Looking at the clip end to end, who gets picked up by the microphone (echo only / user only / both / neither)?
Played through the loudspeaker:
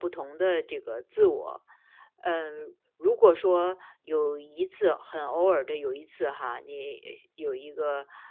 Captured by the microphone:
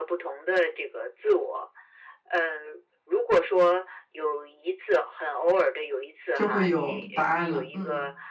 both